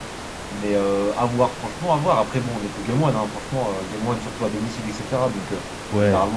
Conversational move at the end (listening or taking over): listening